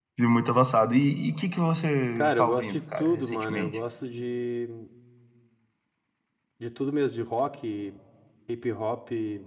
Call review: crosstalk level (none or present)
present